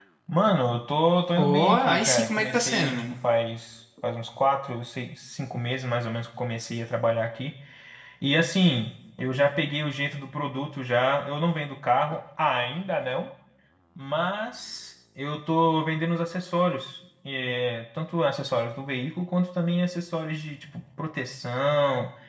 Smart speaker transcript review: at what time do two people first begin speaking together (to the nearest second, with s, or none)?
1 s